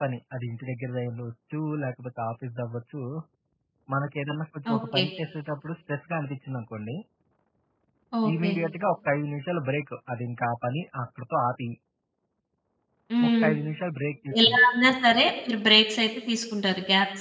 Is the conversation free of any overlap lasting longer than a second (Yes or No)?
Yes